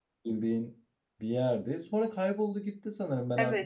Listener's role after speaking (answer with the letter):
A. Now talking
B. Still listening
A